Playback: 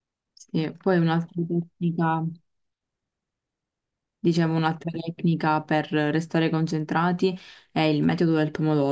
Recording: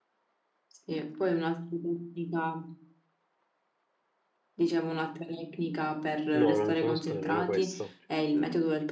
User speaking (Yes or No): Yes